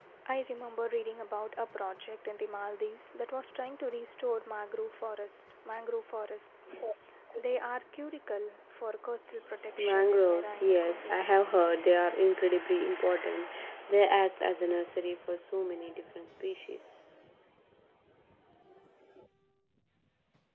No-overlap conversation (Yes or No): No